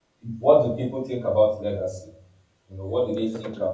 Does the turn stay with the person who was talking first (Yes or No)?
Yes